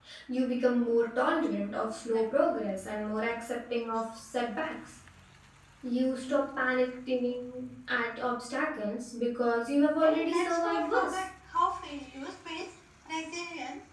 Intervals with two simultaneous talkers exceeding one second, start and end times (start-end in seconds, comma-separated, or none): 10.0-11.2